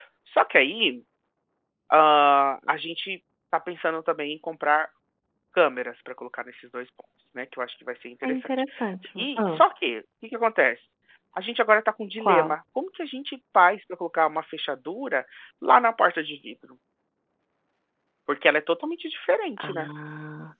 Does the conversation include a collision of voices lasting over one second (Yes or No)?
No